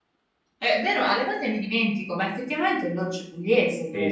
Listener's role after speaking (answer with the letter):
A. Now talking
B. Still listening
A